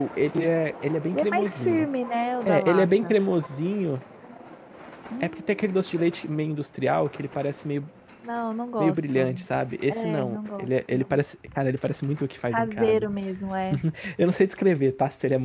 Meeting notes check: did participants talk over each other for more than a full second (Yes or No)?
Yes